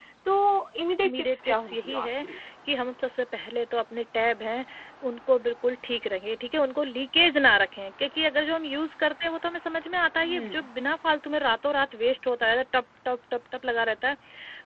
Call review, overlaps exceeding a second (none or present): present